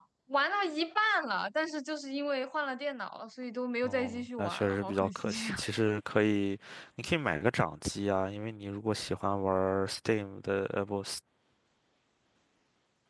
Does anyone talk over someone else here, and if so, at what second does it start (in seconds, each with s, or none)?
3.8 s